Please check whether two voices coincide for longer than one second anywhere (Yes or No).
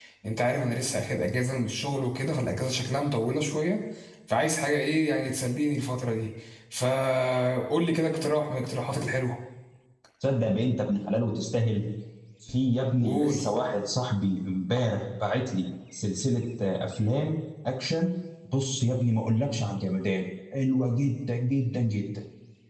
No